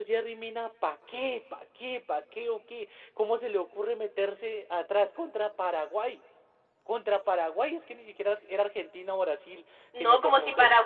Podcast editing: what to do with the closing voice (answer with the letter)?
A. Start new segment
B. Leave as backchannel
A